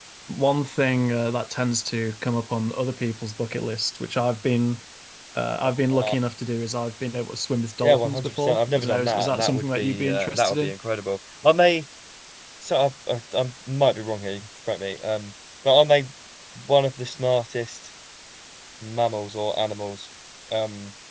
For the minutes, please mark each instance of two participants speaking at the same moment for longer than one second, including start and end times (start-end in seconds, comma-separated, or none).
7.8-10.7